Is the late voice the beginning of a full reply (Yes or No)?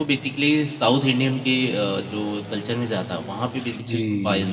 Yes